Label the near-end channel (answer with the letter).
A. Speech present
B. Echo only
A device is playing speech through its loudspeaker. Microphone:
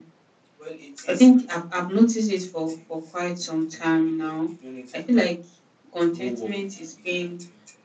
B